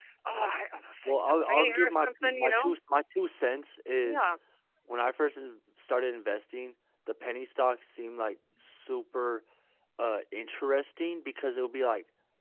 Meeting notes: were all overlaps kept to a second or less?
No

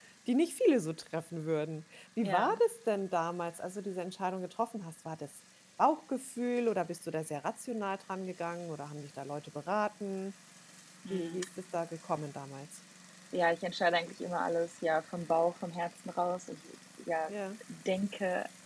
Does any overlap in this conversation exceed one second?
No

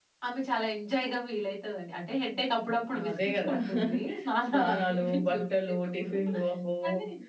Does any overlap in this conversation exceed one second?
Yes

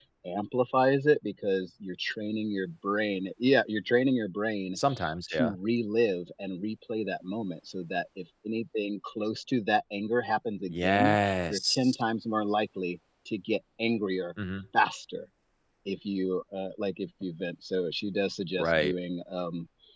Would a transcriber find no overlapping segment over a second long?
Yes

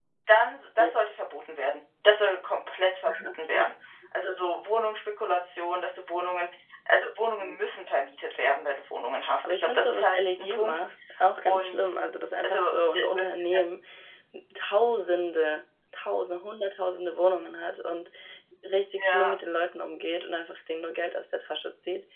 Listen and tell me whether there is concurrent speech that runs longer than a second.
Yes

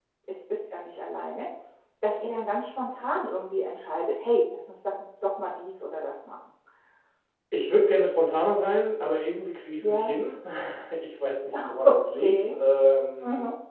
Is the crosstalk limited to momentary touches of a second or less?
Yes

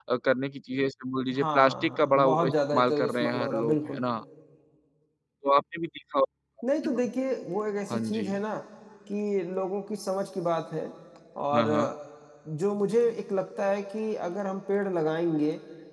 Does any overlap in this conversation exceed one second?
Yes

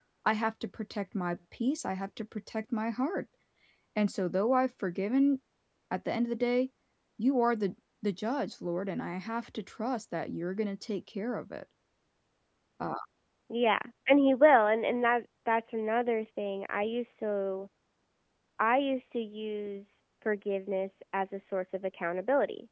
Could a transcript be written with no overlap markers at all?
Yes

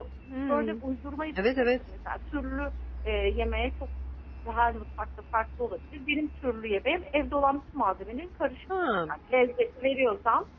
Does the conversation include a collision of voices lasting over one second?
No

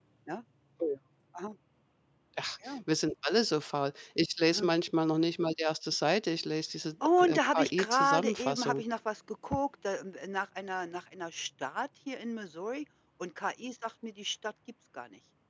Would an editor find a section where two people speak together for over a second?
Yes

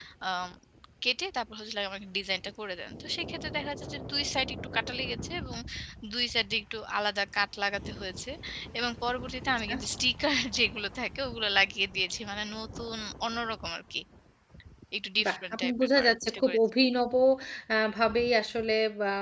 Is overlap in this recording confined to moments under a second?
No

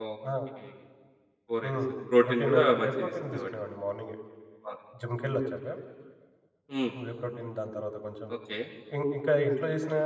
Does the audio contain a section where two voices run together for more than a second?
Yes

